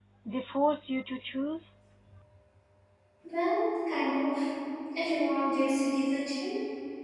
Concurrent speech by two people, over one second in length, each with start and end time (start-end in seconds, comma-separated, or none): none